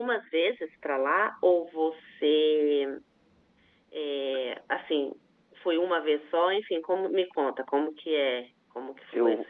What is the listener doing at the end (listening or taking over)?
taking over